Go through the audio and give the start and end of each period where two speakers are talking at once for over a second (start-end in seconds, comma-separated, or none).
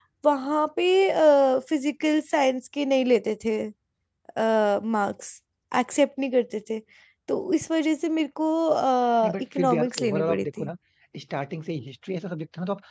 9.4-10.7